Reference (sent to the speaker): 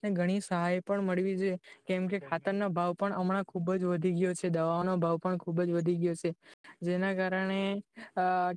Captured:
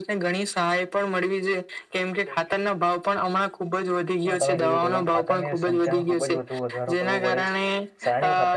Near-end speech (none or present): present